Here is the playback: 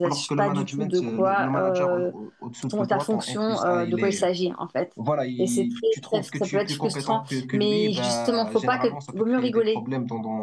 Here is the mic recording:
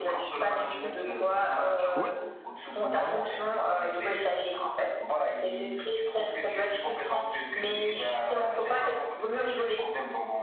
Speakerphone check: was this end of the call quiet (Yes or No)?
No